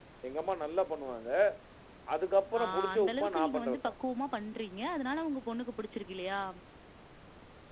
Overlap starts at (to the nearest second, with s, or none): 3 s